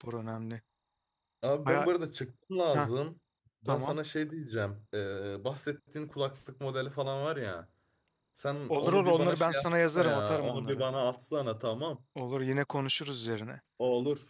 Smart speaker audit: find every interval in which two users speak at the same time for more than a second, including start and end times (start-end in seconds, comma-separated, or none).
8.7-10.9